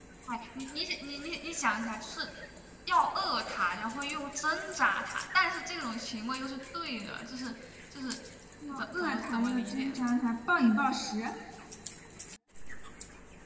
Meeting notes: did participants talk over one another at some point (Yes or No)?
Yes